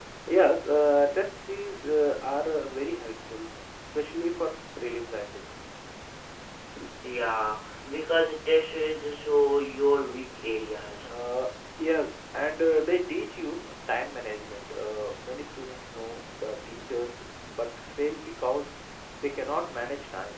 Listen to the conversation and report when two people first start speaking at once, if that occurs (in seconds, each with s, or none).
none